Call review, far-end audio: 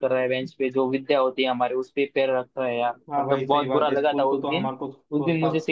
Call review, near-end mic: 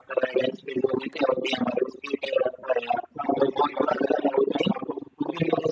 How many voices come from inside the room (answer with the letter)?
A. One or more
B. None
B